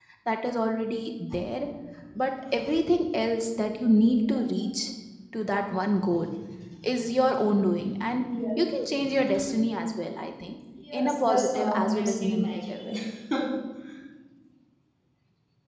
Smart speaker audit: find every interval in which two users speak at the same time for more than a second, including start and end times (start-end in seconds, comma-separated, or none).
10.9-12.9